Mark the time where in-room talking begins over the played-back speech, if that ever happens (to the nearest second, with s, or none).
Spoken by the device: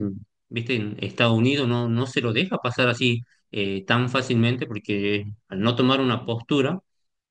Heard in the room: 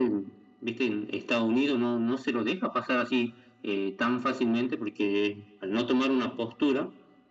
none